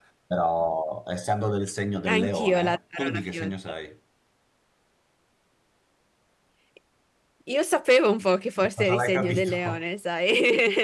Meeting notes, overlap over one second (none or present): present